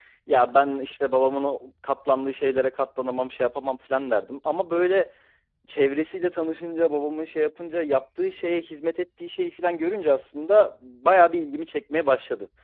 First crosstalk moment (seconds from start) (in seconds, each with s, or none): none